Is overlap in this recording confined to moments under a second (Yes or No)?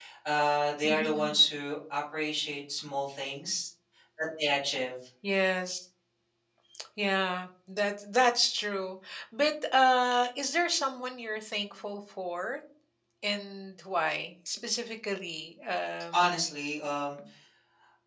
Yes